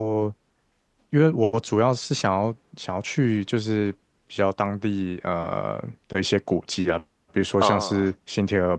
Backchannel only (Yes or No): Yes